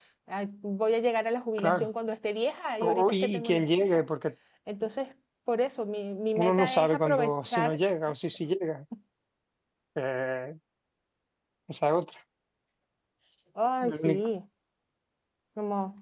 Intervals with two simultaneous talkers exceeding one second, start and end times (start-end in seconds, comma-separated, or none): 2.8-4.0, 6.4-7.8